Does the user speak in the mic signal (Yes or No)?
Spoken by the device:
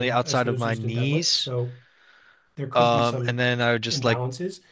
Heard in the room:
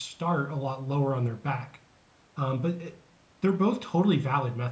Yes